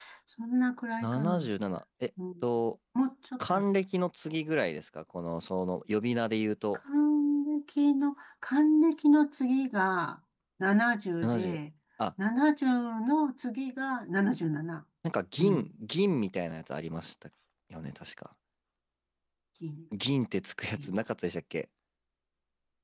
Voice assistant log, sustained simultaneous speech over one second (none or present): none